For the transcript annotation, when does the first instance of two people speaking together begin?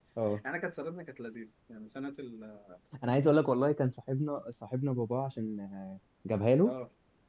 none

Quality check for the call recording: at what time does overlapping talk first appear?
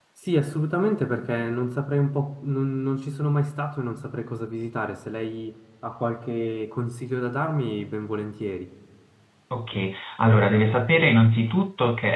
none

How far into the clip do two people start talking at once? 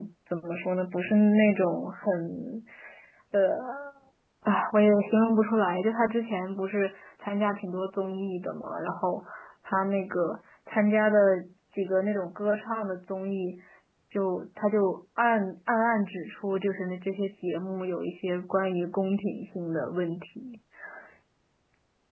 none

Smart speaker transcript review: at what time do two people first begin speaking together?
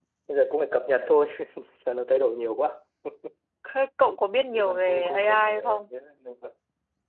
4.5 s

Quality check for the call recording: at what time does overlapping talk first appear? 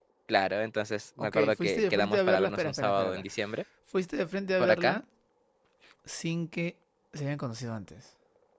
1.2 s

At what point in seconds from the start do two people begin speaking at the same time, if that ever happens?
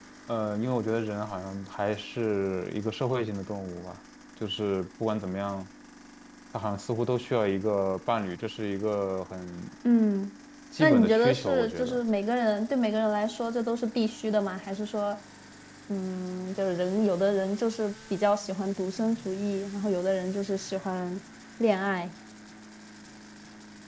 10.8 s

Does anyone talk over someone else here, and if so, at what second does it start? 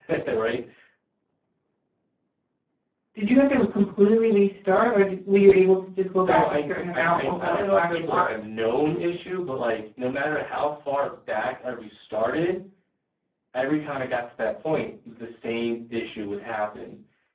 6.2 s

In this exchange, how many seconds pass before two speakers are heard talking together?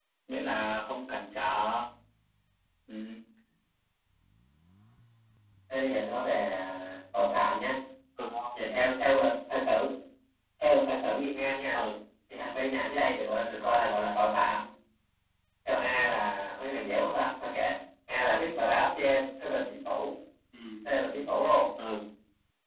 none

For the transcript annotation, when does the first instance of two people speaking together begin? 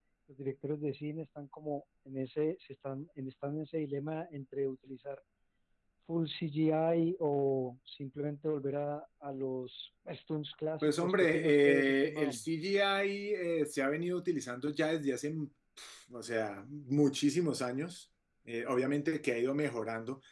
10.8 s

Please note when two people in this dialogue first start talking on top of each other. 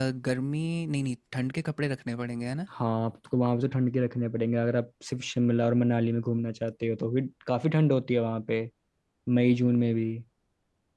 none

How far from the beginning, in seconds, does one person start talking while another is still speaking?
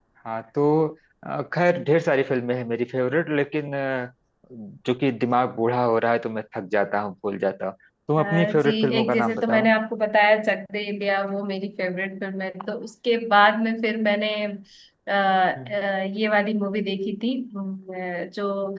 8.2 s

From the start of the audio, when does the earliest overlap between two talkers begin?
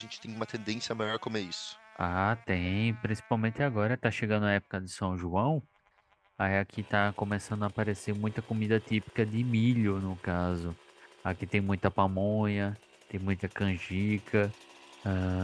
none

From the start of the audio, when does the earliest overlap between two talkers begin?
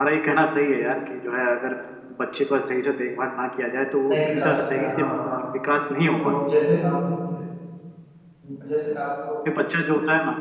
4.1 s

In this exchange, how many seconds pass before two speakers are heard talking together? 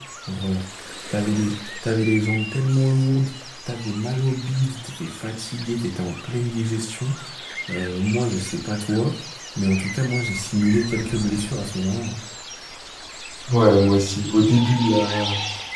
none

